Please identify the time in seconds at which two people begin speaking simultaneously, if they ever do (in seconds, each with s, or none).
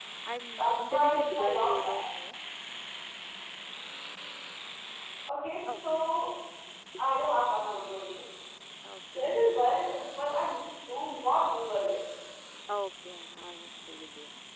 0.6 s